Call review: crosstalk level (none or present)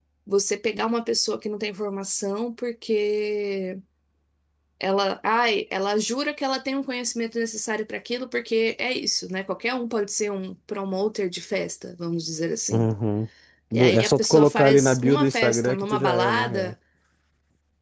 present